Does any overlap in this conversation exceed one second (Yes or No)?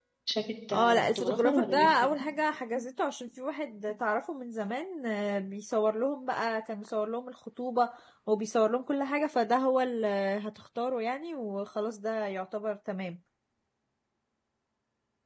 Yes